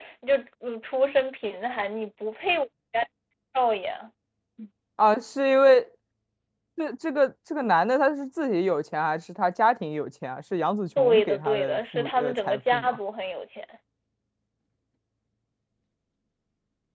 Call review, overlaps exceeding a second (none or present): present